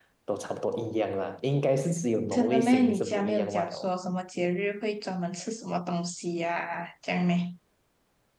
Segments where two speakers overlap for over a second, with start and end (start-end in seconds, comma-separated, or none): 2.3-3.8